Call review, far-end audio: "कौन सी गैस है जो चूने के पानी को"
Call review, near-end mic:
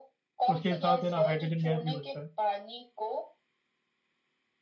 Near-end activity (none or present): present